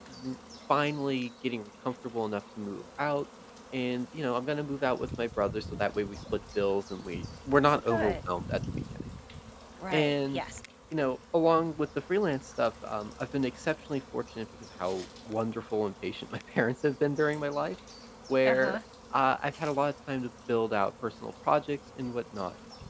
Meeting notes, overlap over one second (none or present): none